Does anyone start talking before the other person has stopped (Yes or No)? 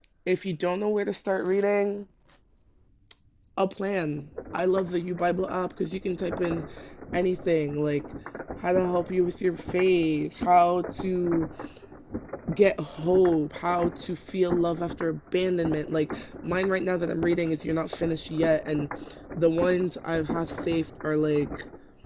No